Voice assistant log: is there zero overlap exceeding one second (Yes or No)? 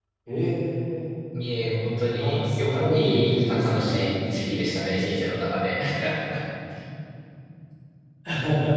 No